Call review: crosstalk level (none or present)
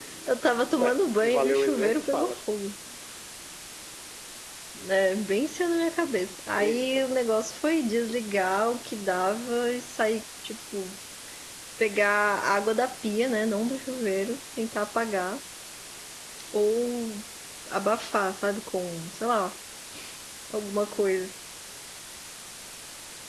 present